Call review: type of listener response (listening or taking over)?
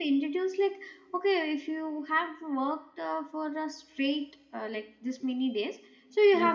listening